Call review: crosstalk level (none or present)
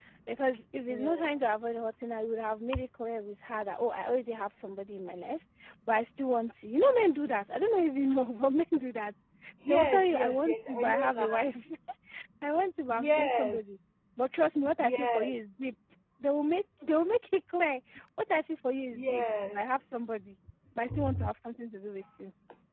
present